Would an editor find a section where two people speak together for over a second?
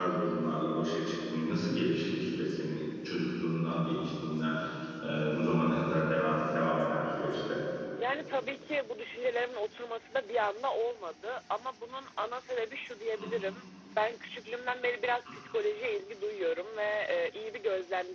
No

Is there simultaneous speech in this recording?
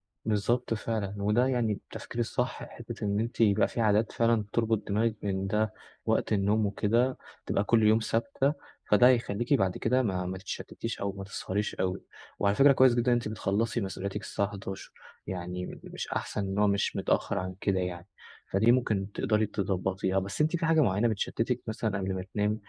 No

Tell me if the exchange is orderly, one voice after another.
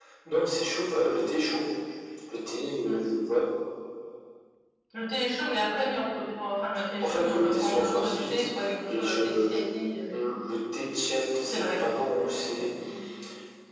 No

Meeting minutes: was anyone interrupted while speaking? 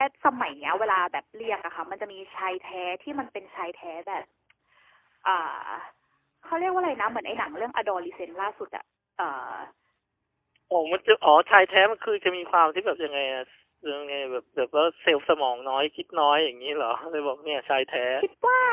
No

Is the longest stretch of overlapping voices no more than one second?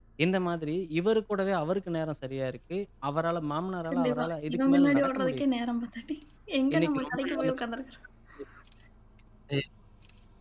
No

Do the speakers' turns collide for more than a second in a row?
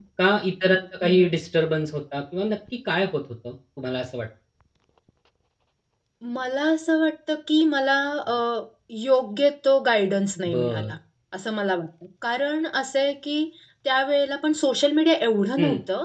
No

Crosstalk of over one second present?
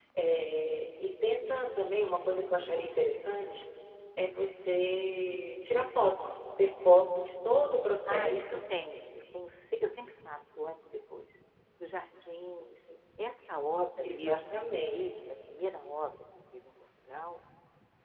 No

